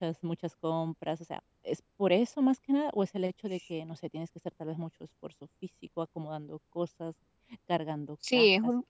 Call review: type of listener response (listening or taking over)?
taking over